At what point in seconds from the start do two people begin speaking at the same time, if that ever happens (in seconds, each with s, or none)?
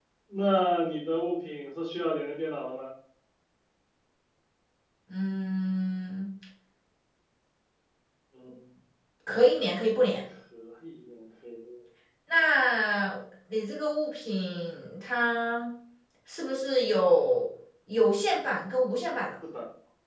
none